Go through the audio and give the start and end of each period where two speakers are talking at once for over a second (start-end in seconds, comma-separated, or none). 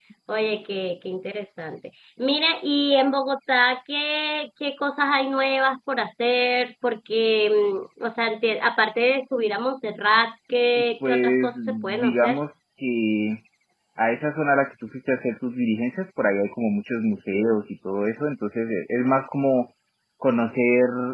11.1-12.4